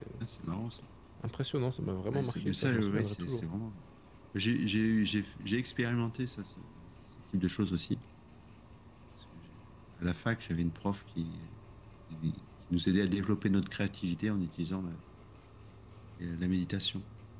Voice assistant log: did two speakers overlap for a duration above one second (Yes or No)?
Yes